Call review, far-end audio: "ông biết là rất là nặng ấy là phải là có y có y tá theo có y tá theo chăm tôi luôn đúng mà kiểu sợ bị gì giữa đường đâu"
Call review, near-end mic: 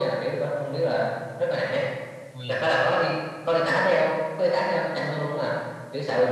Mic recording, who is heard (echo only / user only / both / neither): both